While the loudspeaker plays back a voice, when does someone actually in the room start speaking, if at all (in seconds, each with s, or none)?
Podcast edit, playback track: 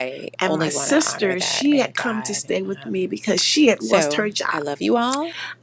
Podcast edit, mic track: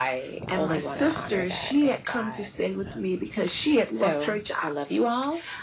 none